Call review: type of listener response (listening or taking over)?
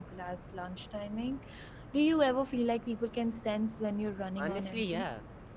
taking over